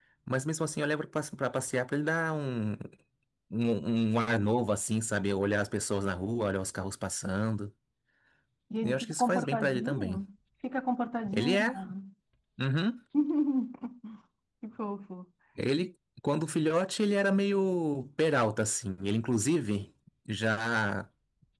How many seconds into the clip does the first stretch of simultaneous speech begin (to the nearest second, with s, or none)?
9 s